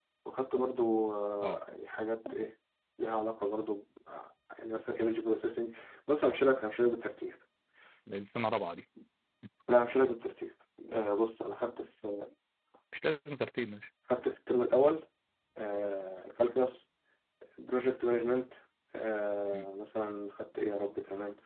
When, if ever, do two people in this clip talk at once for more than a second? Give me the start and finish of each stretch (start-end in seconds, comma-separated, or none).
none